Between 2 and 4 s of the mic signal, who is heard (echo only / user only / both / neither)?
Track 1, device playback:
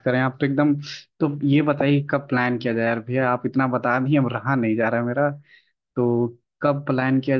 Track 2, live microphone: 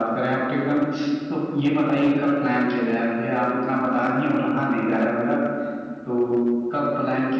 echo only